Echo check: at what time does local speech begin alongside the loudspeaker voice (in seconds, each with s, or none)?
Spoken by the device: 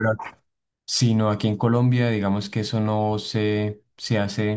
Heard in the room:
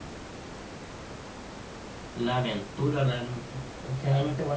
2.1 s